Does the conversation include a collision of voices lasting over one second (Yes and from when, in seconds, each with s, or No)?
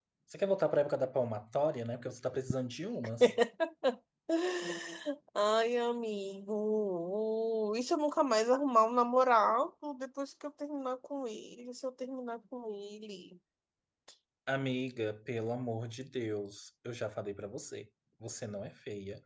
No